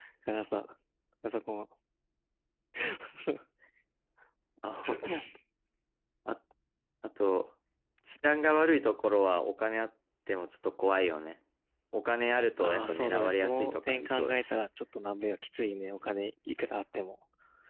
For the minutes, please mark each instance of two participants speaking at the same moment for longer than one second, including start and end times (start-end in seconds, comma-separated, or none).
12.6-14.6